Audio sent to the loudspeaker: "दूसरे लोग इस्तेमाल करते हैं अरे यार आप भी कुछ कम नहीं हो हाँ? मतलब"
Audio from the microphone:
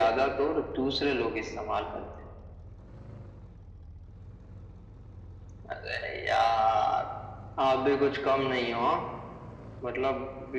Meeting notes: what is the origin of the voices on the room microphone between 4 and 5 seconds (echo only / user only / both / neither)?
neither